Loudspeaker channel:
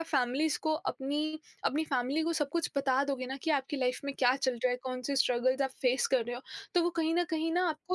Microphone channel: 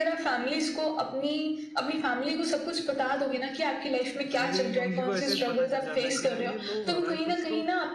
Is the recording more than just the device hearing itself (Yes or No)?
Yes